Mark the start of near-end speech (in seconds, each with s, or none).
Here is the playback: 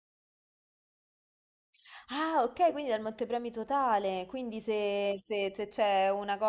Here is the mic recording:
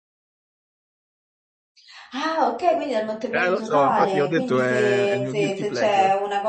3.3 s